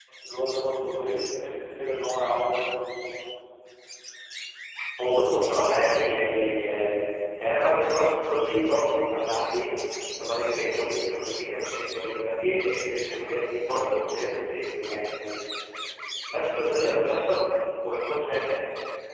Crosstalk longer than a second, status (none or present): none